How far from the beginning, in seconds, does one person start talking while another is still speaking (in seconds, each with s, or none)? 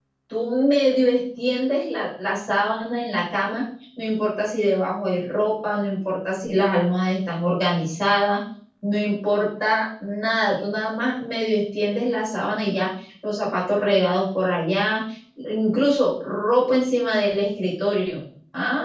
none